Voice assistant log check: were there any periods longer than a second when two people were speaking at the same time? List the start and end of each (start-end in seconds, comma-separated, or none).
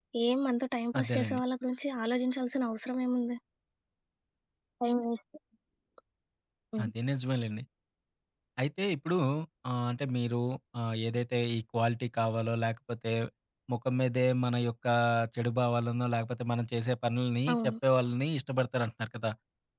none